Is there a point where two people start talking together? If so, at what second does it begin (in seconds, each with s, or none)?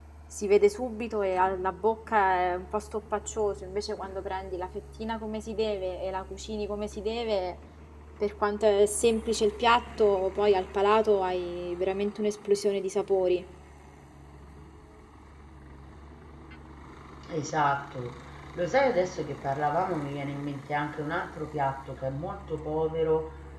none